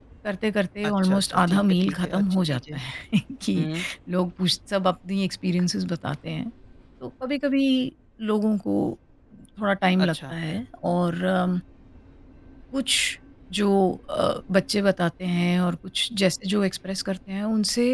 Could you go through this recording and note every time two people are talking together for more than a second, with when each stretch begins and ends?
0.8-2.8

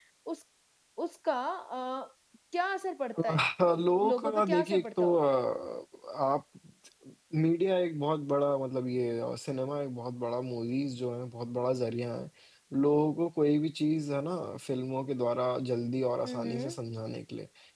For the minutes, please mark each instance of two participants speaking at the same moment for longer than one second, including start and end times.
4.0-5.2

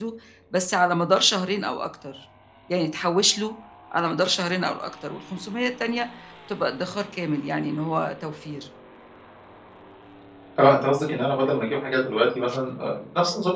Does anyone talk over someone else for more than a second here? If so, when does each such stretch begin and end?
none

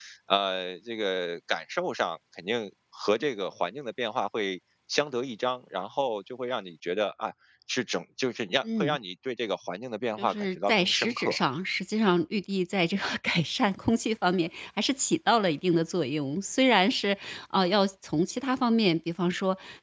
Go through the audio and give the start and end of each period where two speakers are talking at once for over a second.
10.2-11.4

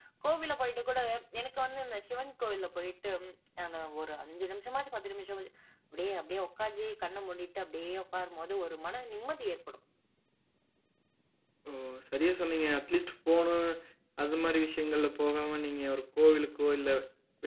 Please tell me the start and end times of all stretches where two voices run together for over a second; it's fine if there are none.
none

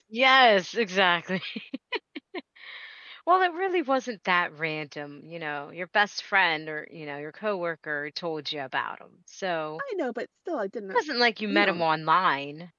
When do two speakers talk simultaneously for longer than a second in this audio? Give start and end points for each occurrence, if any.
none

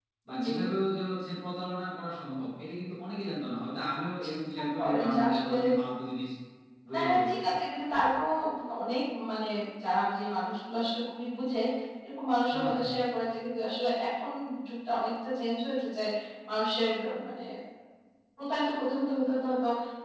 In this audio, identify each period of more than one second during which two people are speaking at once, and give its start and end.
4.3-5.6

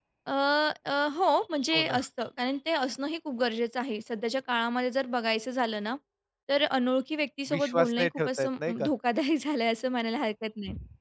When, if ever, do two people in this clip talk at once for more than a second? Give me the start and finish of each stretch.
7.5-8.9

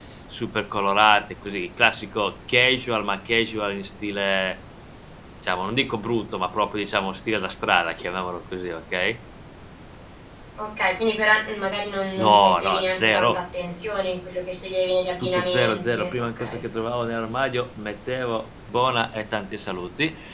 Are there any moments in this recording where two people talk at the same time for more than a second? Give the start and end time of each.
12.2-13.4, 15.2-16.6

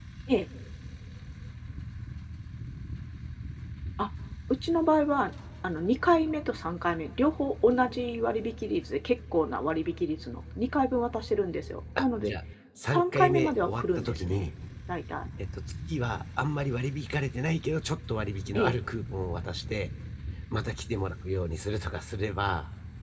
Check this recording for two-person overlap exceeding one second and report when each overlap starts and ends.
12.9-14.5

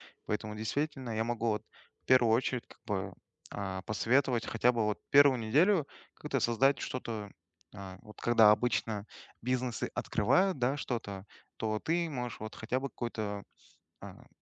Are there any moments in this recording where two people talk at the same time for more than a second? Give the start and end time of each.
none

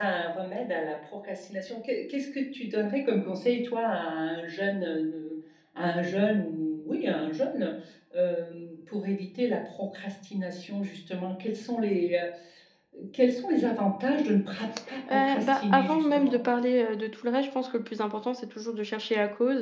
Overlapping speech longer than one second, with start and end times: 15.1-16.4

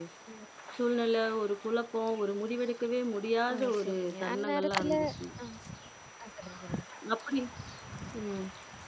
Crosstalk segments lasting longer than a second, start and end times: 3.5-5.1

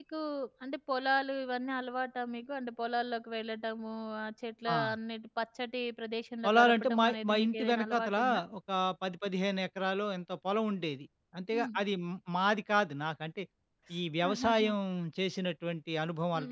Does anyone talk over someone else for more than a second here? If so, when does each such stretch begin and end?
6.4-8.2

